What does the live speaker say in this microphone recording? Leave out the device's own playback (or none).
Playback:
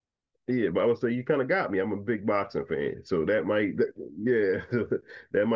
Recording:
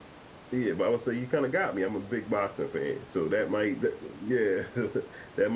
none